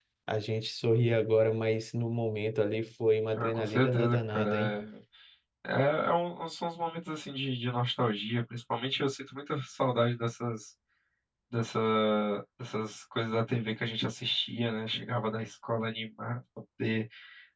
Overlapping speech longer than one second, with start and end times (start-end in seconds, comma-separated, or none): 3.3-4.8